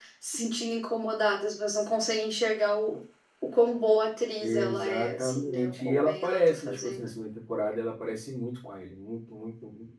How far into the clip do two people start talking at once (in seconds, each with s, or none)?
4.4 s